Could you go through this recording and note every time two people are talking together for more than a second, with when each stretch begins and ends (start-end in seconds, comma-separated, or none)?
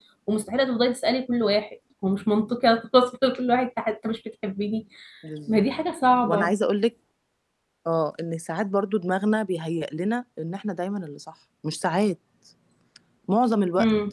none